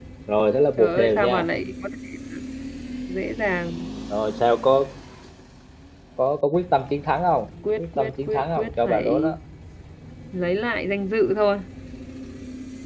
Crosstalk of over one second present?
Yes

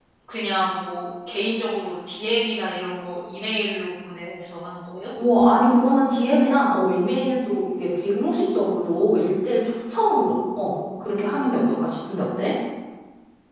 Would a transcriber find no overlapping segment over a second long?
Yes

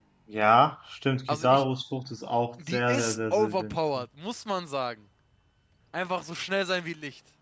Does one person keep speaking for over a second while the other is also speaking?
Yes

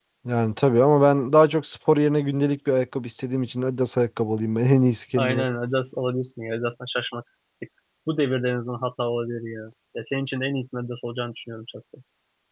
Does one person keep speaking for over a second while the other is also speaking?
No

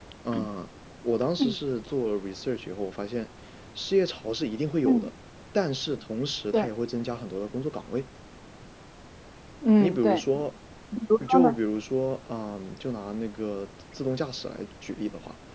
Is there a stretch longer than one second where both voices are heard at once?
No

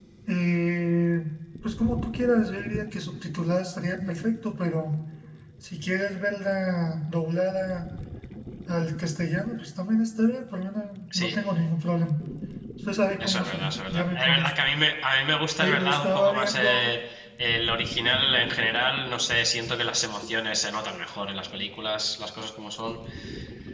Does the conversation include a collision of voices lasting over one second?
Yes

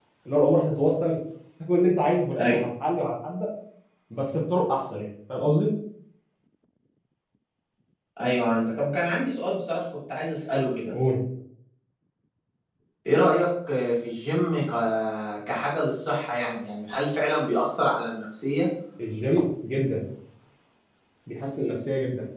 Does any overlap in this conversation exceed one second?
No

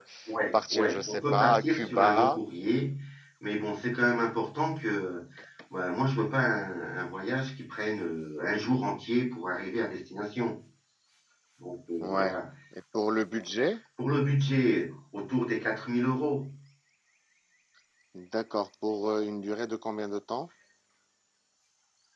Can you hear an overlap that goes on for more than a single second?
Yes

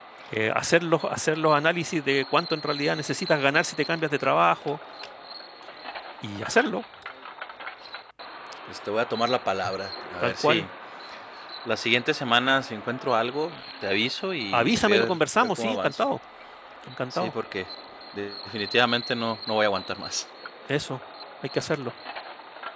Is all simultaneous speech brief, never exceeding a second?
No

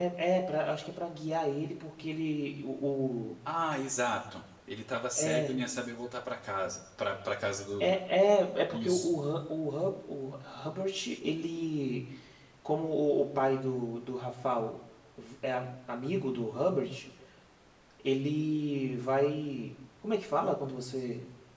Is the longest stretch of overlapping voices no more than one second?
Yes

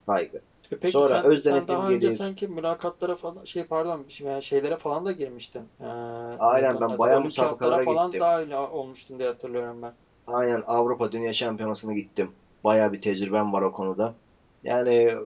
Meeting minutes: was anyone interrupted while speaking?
Yes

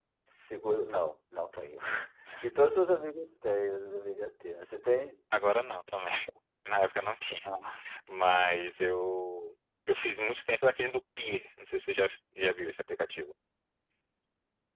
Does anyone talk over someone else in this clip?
No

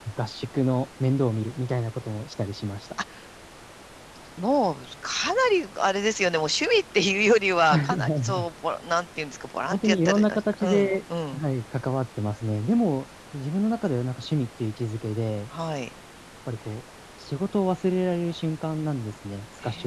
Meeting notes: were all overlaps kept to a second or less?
No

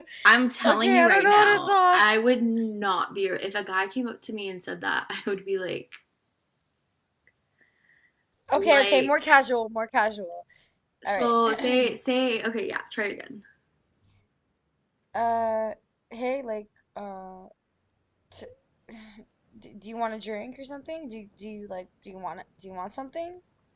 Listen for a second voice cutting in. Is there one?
Yes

